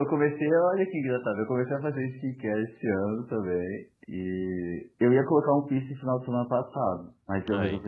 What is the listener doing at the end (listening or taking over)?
listening